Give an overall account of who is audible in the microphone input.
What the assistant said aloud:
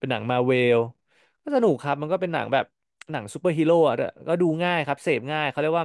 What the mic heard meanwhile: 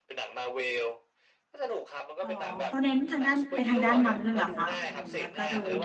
both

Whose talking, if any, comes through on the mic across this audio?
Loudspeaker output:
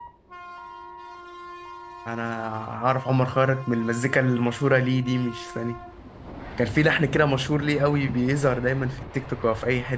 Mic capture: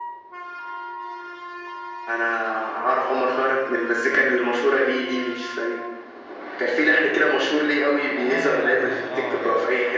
both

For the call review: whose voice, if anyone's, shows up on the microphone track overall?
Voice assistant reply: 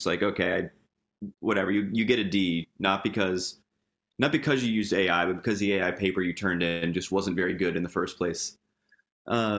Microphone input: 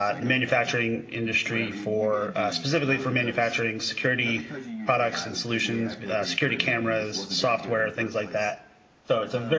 both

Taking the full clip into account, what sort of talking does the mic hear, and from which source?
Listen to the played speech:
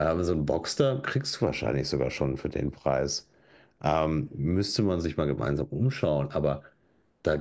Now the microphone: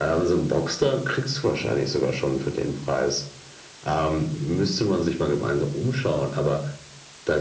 echo only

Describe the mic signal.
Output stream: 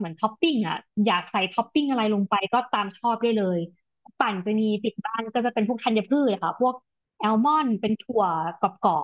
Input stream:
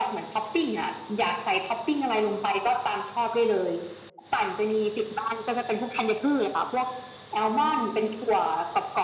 echo only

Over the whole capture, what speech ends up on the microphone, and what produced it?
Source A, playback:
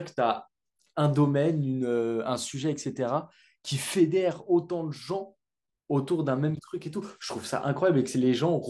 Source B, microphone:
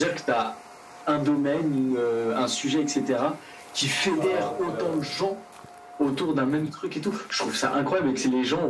both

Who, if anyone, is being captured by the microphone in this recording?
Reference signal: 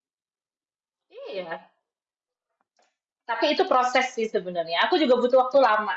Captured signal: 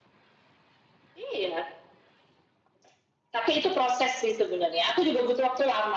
echo only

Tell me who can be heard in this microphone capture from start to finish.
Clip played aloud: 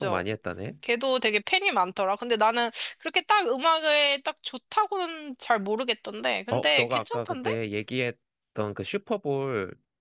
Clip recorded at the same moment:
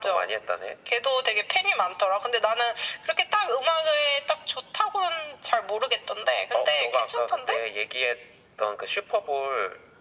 echo only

